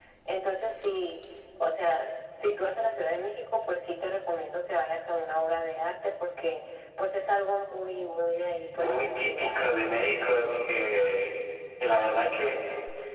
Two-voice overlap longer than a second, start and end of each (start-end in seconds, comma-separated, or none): 8.4-9.7